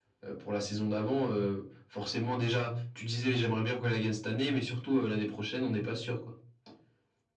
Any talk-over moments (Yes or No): No